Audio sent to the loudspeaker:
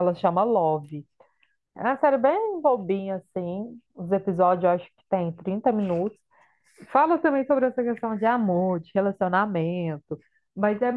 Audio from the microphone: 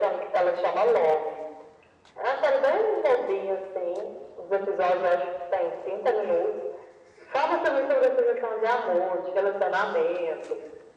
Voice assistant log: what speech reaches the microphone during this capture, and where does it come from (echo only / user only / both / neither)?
echo only